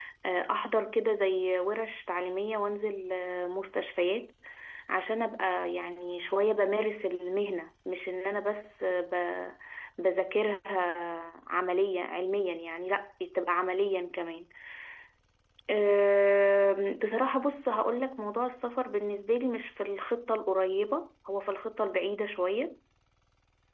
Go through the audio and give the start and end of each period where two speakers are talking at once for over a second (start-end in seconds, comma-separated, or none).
none